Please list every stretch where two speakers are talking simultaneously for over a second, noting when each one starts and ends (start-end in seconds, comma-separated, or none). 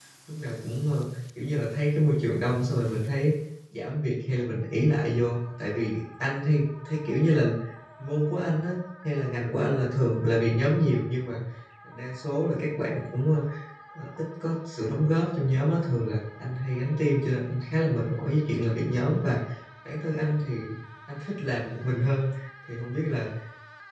none